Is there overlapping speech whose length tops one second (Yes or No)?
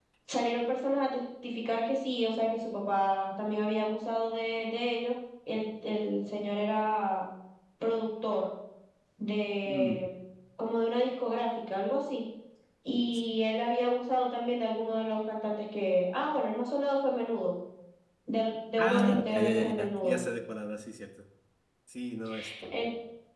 Yes